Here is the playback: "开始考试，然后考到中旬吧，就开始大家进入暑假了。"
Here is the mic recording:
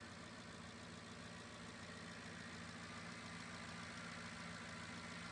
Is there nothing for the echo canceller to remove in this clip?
Yes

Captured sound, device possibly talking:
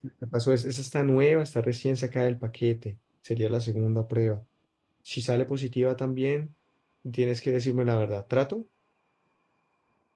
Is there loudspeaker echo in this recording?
No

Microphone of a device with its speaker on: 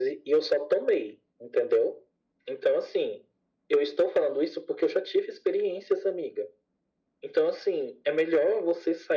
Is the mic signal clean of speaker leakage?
No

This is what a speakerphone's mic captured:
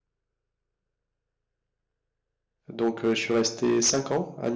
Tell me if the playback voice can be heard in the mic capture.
No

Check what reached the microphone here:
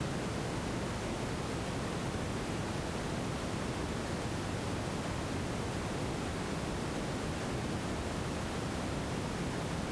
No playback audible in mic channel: Yes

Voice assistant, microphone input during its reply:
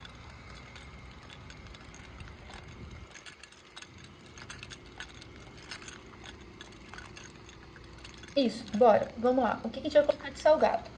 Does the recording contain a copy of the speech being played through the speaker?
No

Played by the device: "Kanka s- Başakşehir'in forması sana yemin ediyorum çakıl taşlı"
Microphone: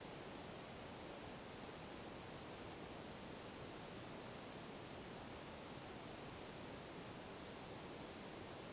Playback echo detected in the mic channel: No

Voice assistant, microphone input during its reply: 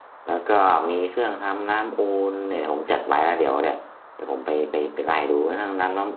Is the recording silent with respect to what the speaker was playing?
Yes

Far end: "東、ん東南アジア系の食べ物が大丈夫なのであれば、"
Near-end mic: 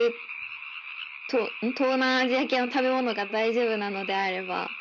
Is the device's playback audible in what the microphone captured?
Yes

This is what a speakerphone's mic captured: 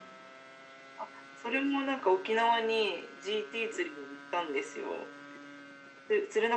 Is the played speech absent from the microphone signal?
No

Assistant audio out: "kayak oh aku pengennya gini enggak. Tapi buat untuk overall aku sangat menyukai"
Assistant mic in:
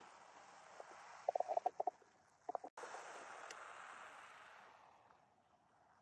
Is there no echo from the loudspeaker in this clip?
Yes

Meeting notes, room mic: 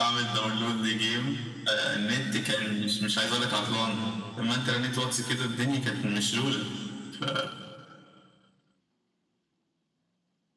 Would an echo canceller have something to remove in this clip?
Yes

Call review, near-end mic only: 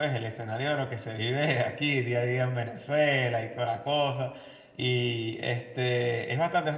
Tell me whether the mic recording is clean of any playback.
Yes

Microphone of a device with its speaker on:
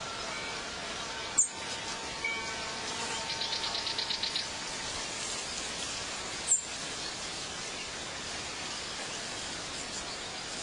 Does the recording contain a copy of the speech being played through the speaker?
No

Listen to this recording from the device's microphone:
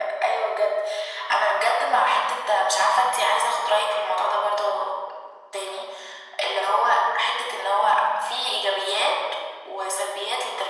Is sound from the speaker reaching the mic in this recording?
Yes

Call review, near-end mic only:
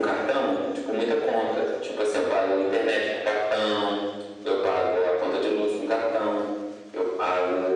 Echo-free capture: No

